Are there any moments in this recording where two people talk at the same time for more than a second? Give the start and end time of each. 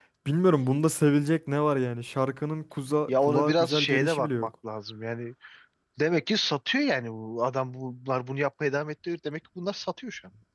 3.1-4.5

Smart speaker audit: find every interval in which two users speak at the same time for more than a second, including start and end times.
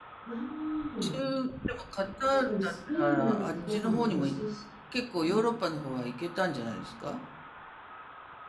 2.5-4.3

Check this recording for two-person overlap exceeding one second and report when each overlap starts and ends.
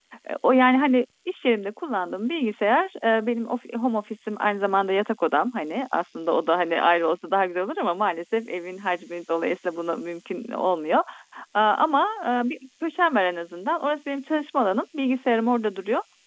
none

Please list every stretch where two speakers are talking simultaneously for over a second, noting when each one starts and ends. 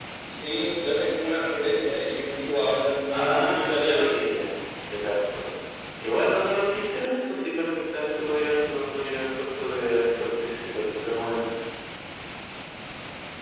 3.1-4.3

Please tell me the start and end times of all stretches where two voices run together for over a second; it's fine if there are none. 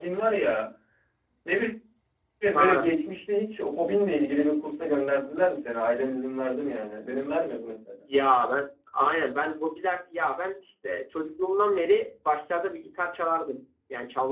none

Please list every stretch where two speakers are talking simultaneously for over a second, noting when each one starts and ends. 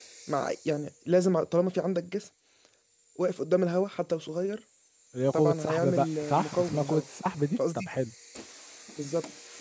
5.3-7.0

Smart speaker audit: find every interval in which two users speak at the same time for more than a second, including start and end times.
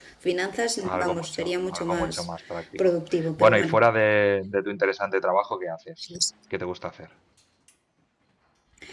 0.8-2.1

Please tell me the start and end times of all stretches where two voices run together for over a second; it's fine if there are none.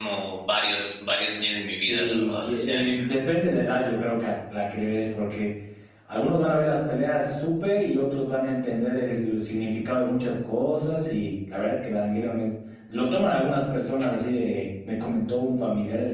1.7-3.0

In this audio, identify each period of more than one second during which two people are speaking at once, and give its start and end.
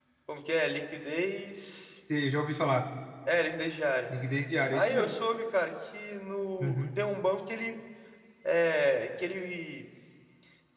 none

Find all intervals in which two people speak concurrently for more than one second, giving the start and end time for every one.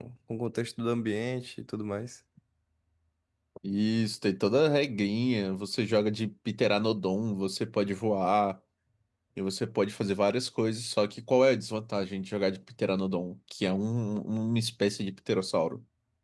none

